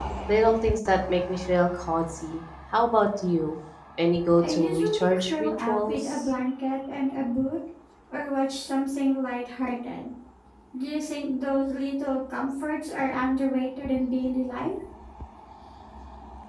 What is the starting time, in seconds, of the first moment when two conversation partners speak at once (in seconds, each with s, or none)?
4.4 s